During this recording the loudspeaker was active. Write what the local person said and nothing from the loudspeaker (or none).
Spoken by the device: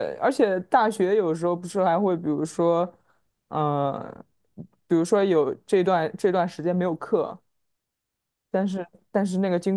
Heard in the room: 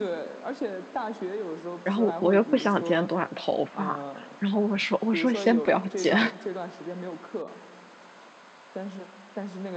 然后我又不想剪短头发，然后我说我说先不要剪，